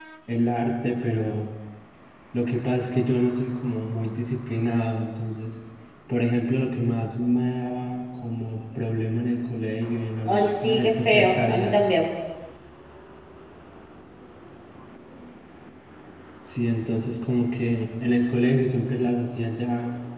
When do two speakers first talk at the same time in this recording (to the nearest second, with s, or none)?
10 s